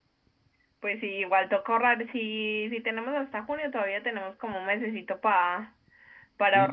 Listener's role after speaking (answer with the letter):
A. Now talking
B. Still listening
A